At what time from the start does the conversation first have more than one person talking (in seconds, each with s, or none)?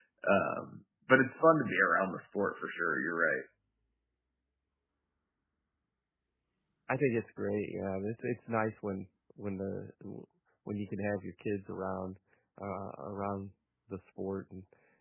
none